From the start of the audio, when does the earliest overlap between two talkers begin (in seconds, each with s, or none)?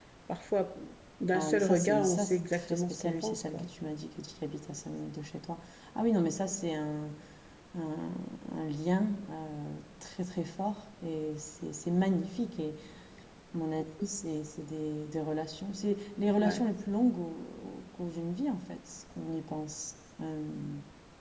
1.3 s